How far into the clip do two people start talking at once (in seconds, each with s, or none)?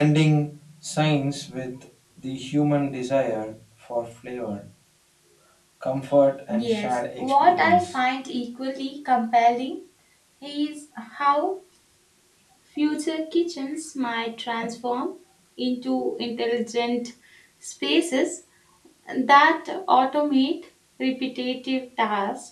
6.5 s